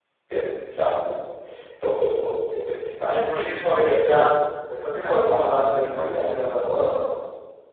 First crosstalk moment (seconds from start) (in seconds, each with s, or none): 3.0 s